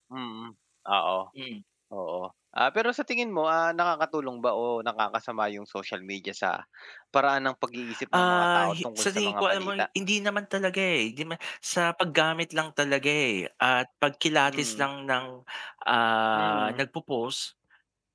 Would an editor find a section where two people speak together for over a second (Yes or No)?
Yes